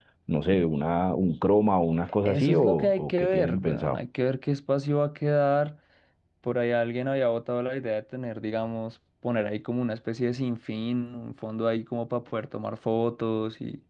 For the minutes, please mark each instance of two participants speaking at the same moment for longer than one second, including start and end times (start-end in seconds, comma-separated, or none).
2.2-4.0